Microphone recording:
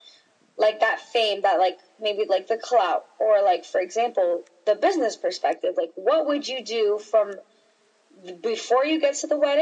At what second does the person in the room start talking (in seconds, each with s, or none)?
none